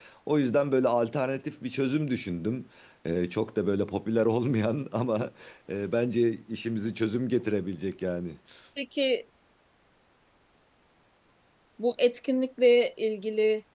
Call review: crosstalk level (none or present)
none